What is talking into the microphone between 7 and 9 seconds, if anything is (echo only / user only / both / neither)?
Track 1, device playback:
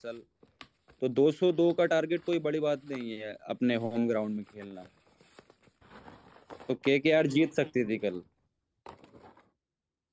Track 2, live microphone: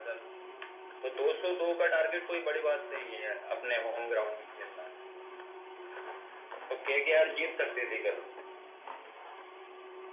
echo only